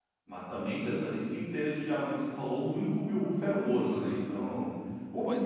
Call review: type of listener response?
listening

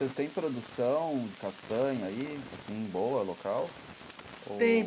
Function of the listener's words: taking over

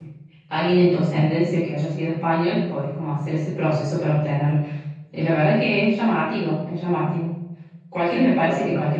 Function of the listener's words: listening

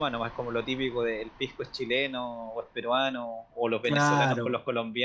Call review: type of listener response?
listening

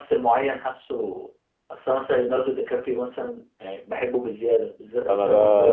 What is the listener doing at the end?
taking over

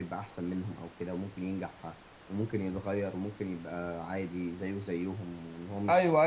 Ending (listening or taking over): taking over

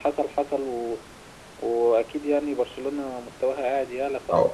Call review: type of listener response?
taking over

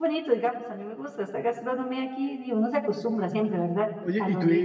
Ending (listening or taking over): taking over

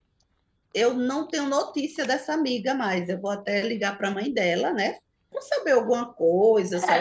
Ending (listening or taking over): taking over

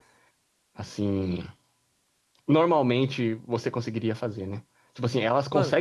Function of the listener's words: listening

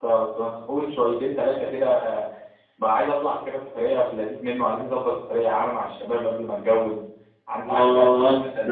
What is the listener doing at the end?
taking over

